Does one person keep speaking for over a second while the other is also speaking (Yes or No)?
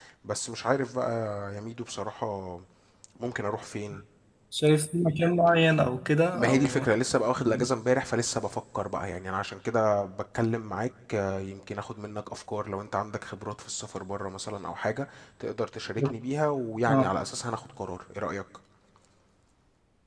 No